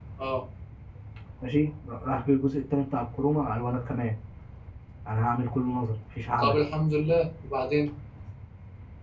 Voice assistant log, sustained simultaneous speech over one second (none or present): none